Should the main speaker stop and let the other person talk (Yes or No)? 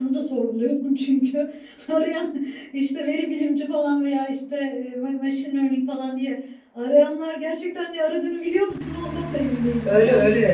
Yes